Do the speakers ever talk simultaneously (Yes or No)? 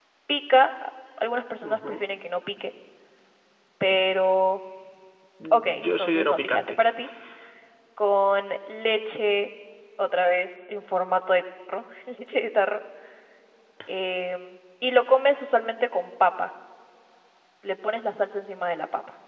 Yes